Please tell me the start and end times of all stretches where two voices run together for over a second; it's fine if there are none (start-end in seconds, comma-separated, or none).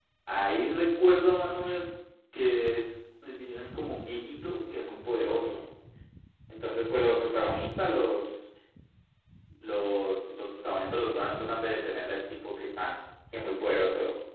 none